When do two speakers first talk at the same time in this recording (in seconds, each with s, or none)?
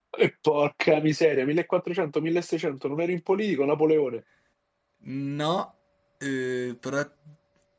none